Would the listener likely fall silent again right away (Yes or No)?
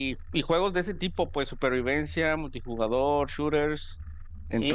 No